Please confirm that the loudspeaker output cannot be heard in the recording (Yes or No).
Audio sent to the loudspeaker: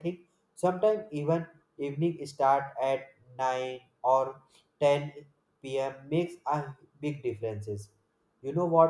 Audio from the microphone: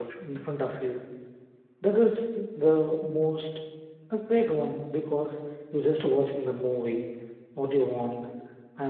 Yes